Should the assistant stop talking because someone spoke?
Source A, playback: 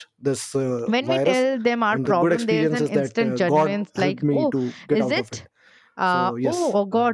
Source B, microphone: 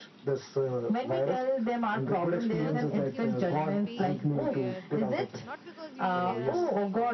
Yes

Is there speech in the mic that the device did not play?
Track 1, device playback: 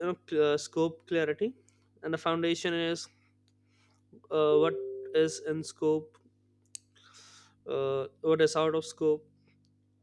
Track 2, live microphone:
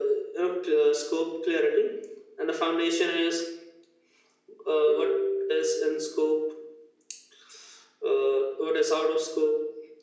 No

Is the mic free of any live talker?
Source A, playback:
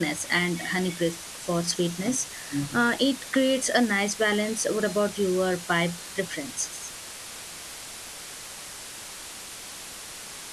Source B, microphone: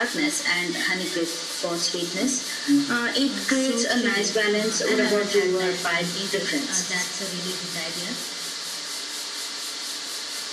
No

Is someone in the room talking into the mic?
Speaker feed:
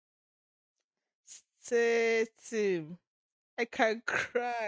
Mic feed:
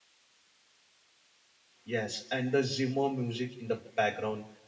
Yes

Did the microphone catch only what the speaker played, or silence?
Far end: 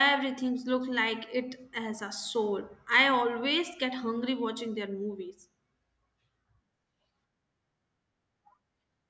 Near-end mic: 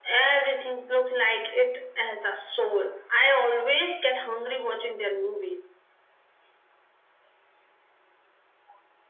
Yes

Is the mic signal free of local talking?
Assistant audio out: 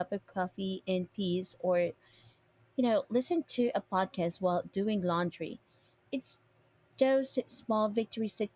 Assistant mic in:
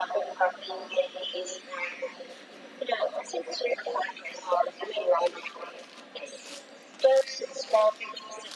Yes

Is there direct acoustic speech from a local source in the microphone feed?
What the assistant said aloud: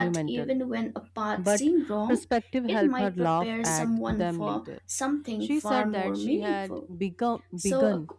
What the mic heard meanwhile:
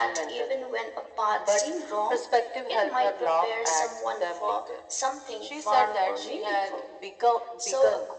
No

